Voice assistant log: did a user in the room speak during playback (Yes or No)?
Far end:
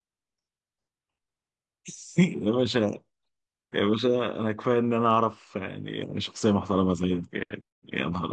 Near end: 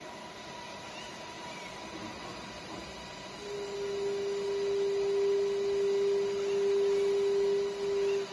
No